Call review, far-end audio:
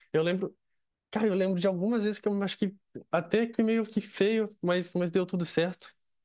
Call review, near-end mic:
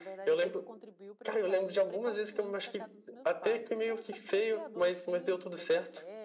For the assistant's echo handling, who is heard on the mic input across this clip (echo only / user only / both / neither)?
both